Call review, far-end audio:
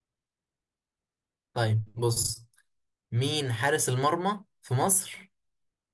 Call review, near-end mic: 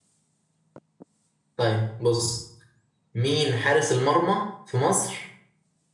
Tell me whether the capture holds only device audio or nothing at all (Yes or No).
Yes